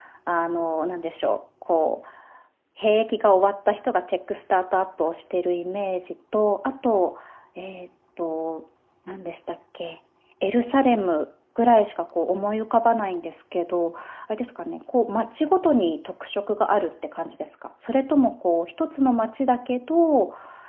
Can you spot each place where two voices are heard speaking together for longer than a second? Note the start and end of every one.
none

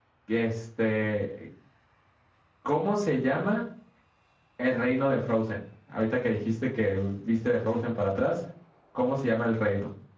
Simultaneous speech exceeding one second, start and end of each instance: none

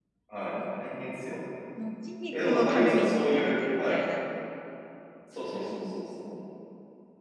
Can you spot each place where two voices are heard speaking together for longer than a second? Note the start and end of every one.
2.3-4.0

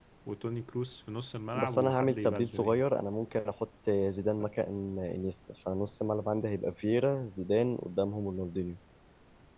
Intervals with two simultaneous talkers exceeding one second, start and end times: 1.6-2.8

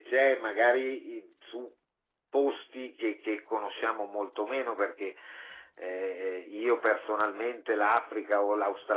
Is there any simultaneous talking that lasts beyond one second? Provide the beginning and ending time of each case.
none

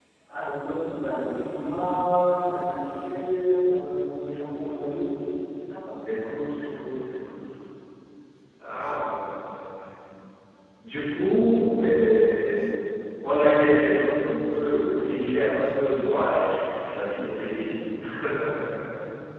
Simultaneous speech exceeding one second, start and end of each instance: none

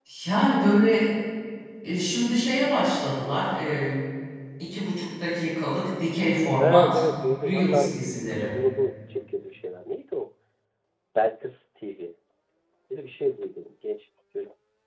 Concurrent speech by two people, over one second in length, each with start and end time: 6.6-8.5

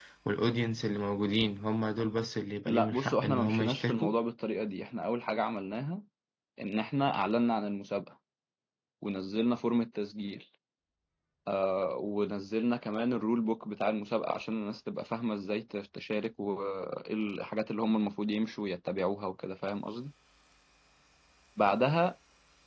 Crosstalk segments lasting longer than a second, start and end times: 2.7-4.1

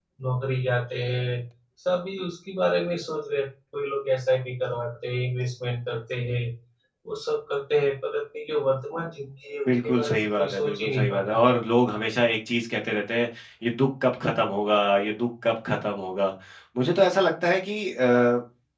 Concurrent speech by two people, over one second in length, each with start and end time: 9.7-11.5

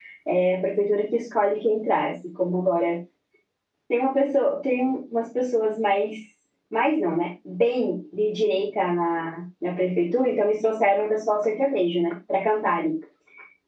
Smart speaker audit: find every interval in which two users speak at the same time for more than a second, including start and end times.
none

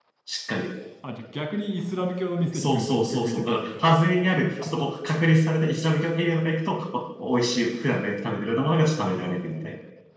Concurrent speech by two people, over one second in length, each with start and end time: 2.5-3.9

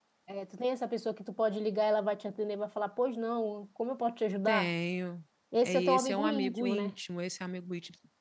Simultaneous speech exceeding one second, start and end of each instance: 5.6-6.9

